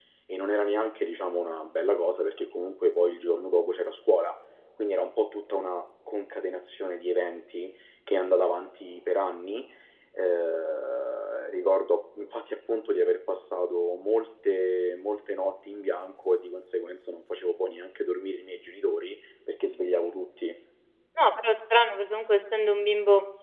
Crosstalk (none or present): none